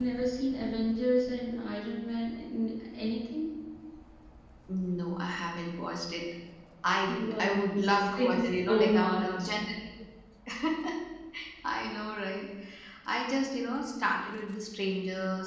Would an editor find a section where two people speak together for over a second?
Yes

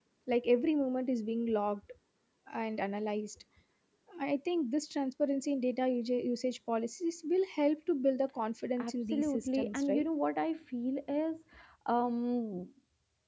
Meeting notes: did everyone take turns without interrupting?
No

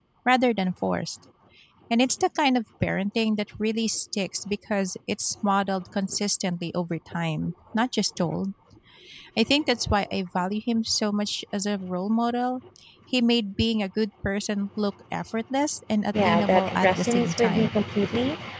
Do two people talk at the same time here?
Yes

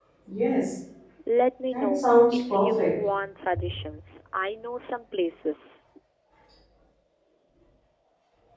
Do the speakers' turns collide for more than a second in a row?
Yes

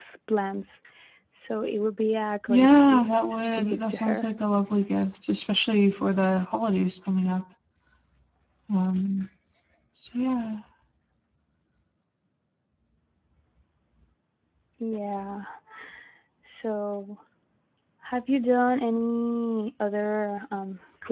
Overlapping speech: Yes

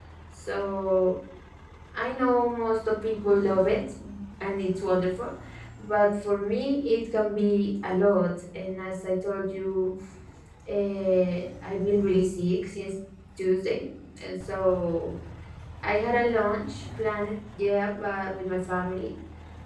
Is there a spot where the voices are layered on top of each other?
No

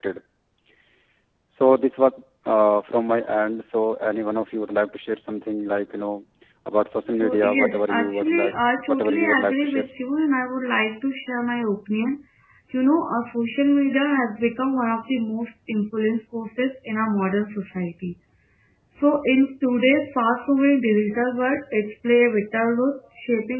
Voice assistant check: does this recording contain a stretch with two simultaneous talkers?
Yes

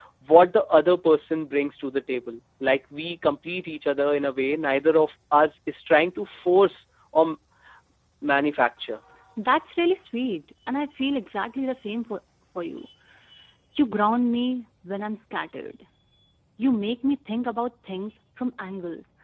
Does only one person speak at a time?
Yes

